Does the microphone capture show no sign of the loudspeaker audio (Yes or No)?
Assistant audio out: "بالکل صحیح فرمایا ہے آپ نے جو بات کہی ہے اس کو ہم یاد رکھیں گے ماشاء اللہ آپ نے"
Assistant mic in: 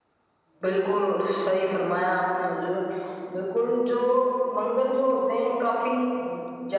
Yes